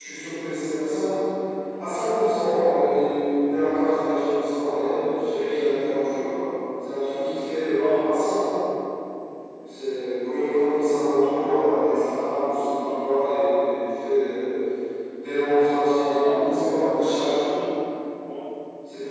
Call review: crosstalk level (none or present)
present